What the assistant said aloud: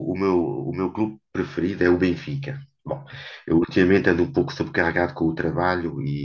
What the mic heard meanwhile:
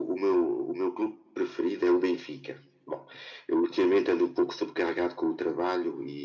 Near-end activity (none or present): none